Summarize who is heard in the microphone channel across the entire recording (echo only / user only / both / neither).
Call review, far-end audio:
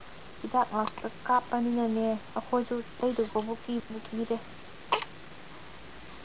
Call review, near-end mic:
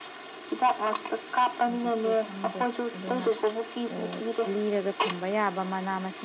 both